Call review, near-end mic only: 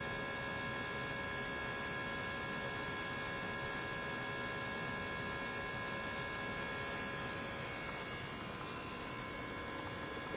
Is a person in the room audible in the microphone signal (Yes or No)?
No